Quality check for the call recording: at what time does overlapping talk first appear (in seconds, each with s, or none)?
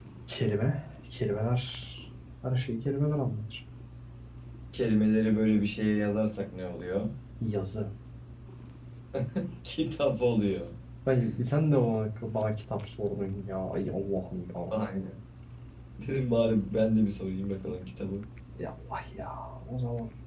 none